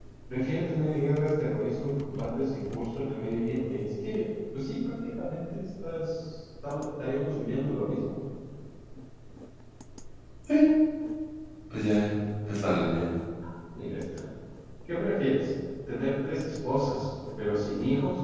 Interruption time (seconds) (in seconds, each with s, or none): none